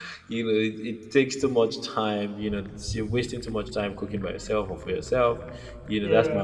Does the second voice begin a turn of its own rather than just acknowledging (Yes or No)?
No